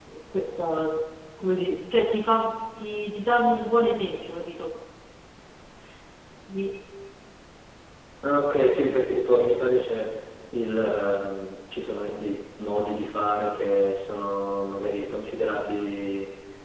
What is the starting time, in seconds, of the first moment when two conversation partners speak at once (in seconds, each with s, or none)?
none